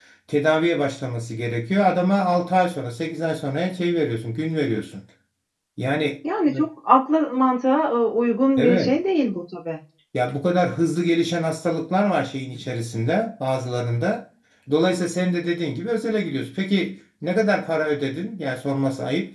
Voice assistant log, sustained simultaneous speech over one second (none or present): none